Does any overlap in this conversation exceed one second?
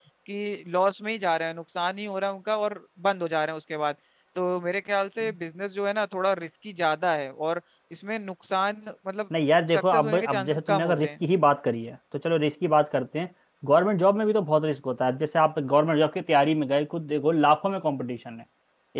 Yes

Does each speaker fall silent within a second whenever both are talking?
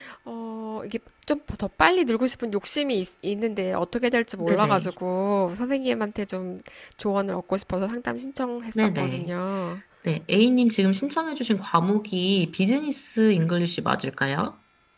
Yes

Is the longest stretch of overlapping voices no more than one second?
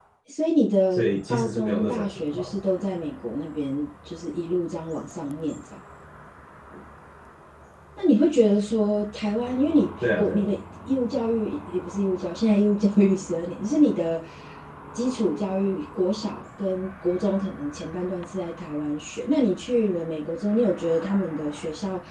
No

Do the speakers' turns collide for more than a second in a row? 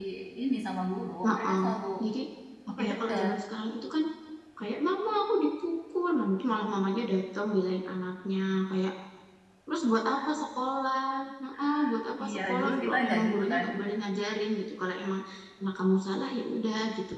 Yes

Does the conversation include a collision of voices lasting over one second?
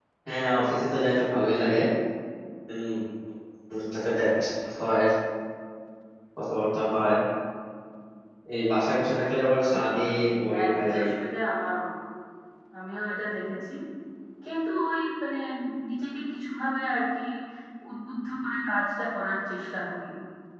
Yes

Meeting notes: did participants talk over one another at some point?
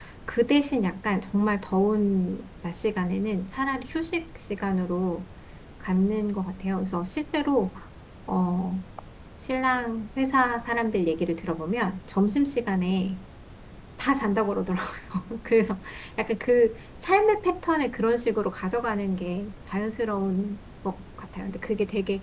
No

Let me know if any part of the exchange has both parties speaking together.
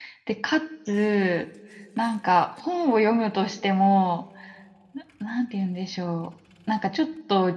No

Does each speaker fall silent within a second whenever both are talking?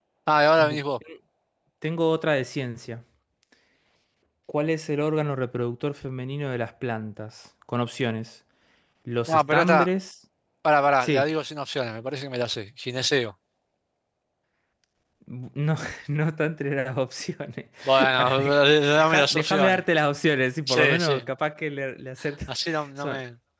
No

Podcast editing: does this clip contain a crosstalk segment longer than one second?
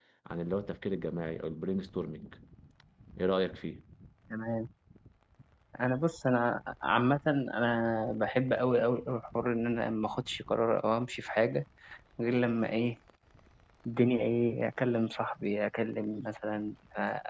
No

